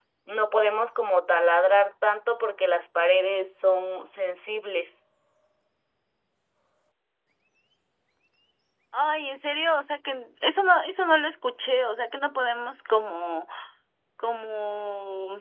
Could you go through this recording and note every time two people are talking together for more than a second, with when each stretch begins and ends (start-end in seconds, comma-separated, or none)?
none